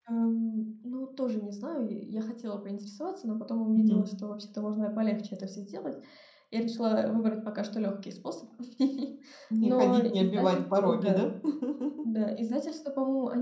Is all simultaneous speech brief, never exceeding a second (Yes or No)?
No